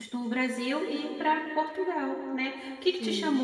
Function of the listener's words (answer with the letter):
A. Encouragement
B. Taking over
A